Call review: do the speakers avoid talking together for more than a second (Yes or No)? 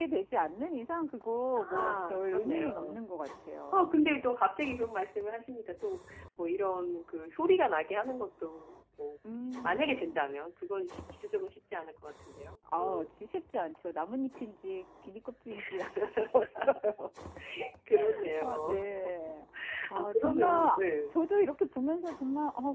No